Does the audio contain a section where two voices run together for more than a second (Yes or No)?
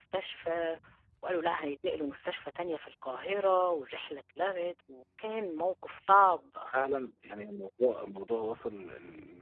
No